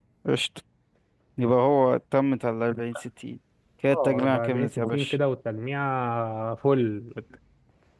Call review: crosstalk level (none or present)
present